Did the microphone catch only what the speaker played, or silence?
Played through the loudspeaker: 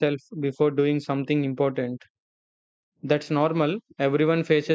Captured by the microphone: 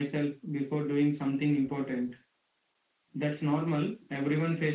Yes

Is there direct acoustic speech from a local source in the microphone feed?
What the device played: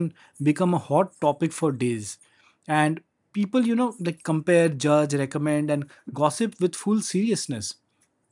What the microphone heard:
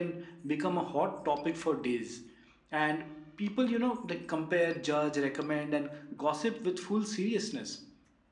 No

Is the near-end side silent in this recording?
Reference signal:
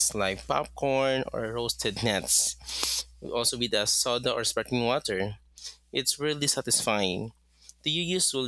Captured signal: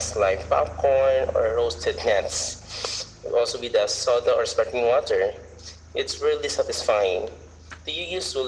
Yes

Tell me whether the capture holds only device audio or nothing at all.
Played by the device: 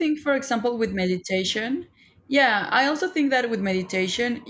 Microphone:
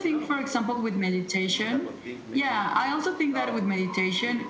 No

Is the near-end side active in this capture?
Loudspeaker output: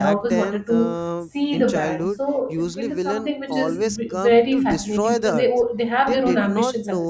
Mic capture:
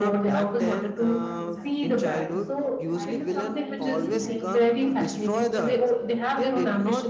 Yes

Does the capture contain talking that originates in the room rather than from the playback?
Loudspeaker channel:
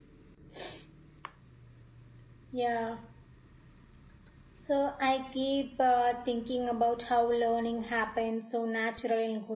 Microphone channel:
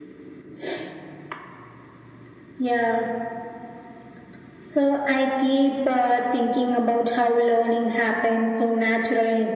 No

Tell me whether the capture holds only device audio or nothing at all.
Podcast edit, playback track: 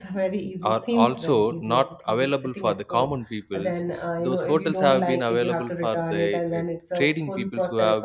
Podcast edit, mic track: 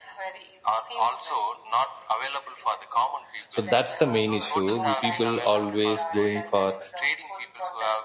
No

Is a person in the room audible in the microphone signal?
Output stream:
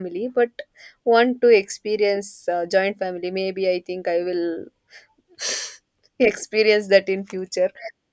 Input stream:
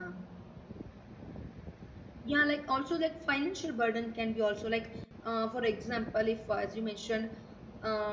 Yes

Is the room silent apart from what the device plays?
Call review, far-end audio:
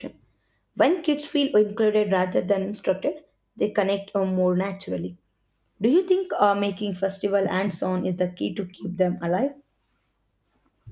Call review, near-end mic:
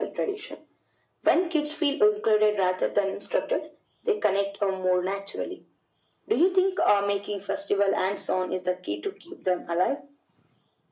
Yes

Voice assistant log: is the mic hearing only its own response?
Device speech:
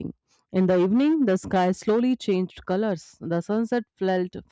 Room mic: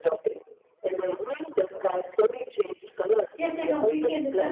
No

